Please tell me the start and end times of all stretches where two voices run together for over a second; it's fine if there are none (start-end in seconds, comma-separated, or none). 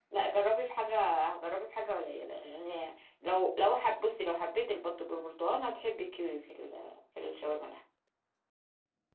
none